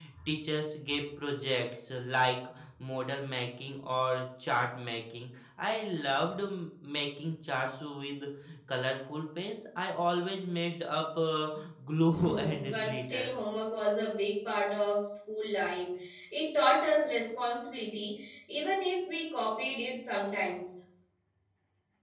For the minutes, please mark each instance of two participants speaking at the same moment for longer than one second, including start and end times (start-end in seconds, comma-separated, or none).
12.1-13.3